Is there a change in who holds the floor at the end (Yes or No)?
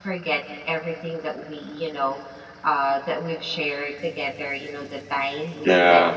No